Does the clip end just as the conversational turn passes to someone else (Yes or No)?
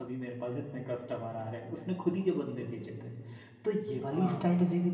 No